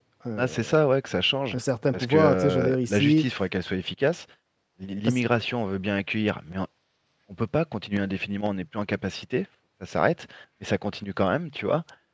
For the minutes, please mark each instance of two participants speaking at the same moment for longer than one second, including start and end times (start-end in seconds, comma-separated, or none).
1.9-3.2